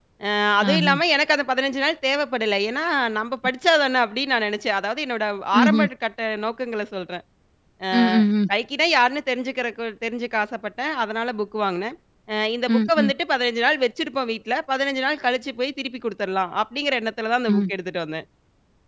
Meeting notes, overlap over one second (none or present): none